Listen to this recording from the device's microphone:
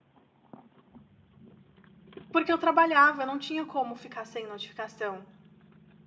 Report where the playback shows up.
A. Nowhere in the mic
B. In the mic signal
A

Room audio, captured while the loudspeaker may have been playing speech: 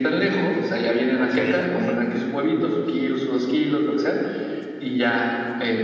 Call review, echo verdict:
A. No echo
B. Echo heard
B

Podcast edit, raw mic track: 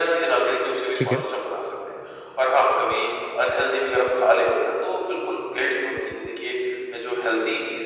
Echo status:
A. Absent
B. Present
B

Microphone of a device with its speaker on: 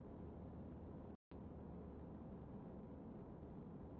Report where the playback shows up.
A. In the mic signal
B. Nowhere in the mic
B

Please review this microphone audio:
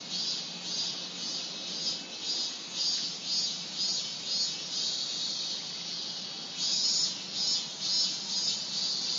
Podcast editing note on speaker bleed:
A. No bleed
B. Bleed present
A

